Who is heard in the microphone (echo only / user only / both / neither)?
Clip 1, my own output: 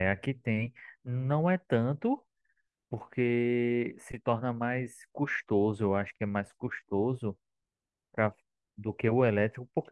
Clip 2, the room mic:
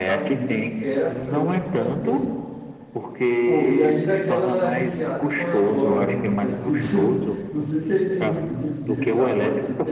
both